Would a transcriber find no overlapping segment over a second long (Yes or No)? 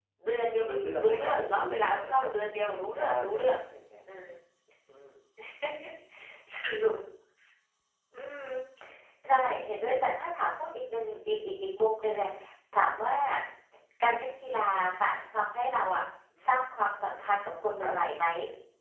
No